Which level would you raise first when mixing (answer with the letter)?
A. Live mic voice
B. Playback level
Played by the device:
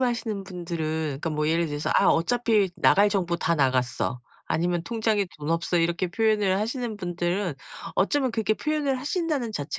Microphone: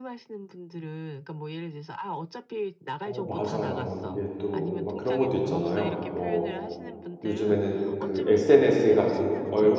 B